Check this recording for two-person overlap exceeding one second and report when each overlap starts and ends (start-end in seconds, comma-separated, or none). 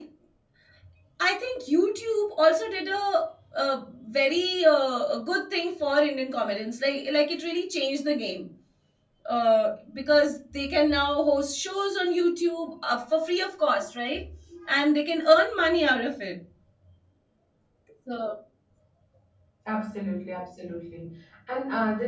none